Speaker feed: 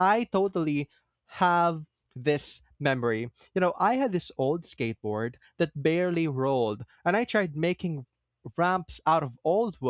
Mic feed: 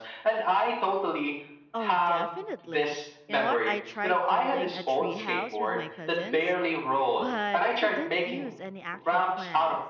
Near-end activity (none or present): present